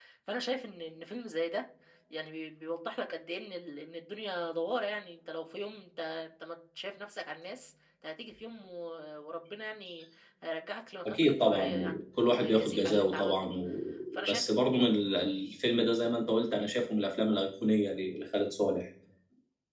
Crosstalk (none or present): present